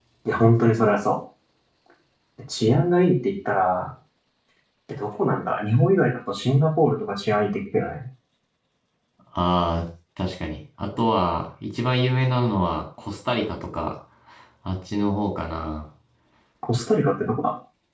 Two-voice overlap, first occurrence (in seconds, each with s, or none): none